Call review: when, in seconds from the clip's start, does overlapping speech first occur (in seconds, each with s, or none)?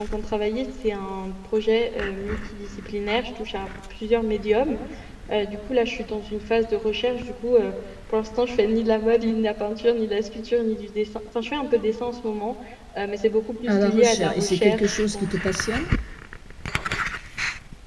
13.7 s